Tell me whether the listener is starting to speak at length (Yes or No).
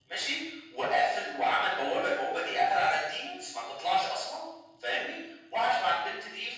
No